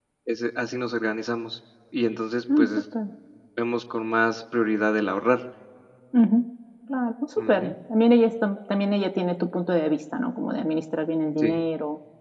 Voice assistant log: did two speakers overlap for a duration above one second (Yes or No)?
No